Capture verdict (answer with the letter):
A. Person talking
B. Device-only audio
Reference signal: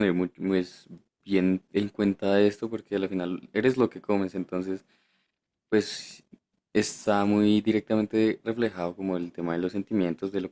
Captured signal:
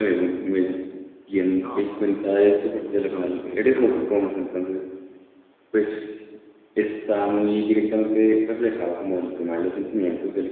A